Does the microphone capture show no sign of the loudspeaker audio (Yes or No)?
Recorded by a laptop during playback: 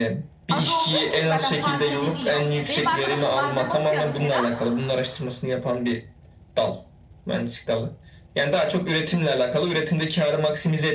No